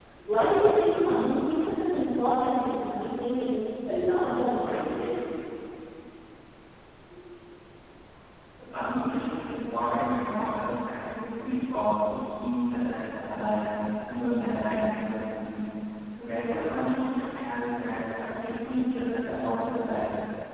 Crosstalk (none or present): none